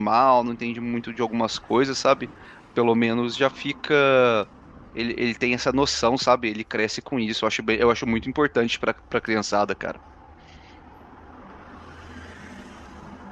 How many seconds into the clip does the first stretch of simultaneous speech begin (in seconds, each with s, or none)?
none